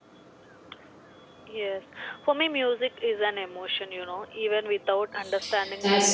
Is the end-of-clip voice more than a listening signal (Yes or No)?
Yes